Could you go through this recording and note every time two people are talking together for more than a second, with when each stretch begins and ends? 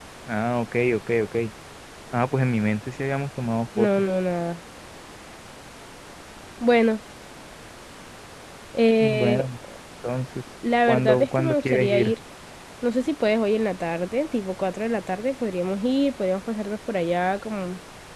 10.9-12.1

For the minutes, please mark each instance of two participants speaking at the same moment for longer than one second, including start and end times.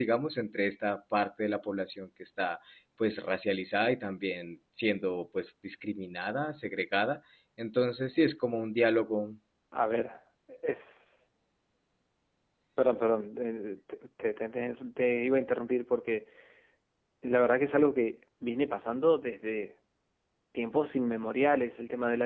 none

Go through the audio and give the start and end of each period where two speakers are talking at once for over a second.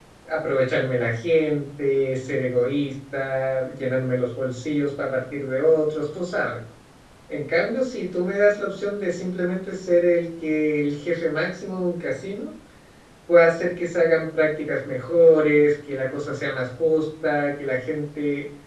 none

